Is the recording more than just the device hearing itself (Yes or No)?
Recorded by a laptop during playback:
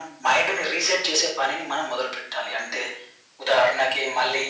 No